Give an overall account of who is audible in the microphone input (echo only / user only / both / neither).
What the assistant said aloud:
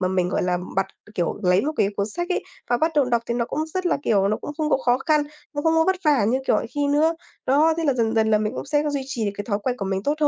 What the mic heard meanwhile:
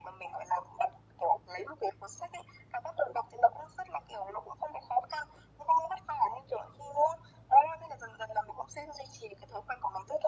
echo only